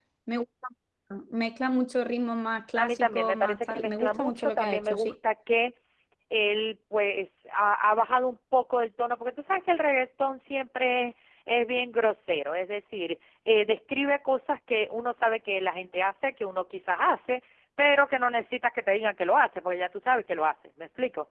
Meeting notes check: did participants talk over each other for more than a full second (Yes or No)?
Yes